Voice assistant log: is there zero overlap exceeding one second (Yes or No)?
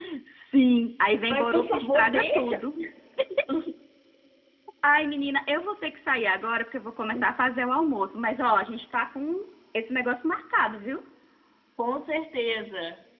No